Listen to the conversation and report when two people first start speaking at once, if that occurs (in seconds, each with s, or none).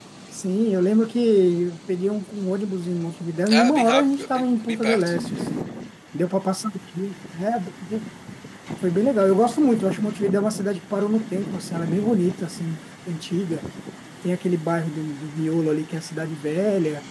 3.5 s